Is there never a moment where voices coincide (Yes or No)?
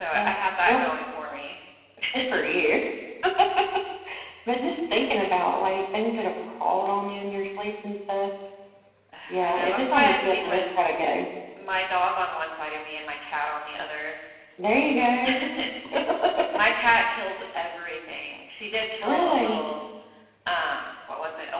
No